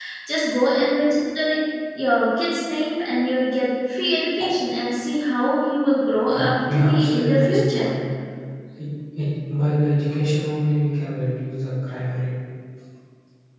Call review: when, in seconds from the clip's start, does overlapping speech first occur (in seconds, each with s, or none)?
6.2 s